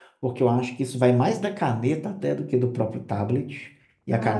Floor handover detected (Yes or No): No